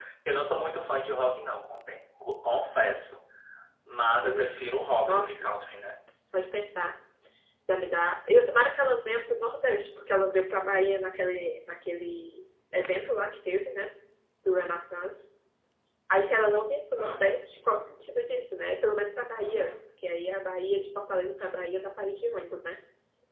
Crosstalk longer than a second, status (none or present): none